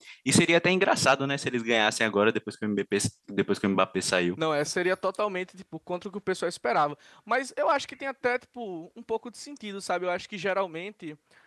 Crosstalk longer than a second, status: none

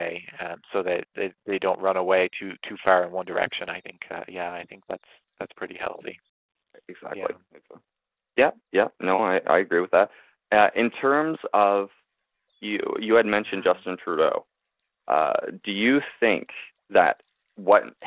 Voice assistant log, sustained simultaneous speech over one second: none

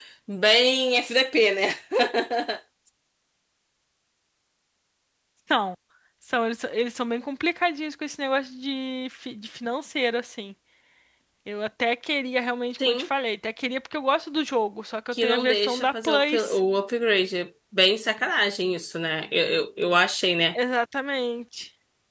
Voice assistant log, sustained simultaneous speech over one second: present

